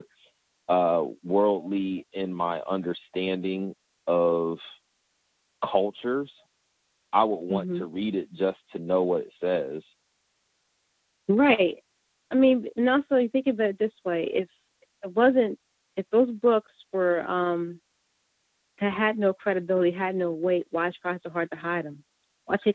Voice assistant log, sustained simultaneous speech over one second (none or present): none